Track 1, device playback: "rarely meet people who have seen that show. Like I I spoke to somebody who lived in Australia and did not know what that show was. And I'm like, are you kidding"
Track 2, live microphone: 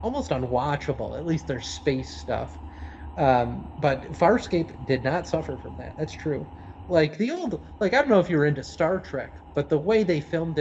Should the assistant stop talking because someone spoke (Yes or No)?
Yes